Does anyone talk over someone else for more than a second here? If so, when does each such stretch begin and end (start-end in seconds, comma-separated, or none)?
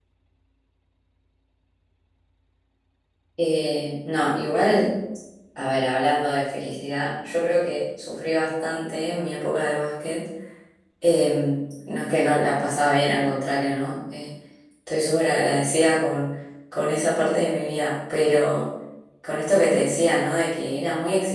none